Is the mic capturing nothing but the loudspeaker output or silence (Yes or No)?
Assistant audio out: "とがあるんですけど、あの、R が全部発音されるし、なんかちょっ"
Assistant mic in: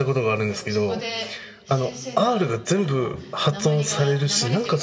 No